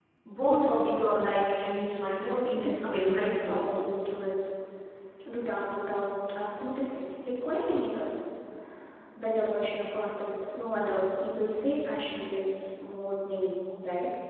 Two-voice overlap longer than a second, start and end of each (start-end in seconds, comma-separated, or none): 2.6-3.9